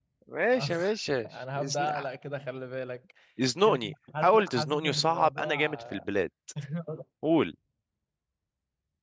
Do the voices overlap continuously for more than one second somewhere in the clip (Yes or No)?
Yes